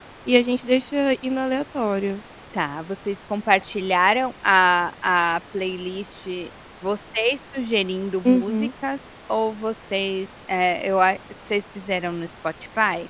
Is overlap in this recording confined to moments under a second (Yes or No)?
Yes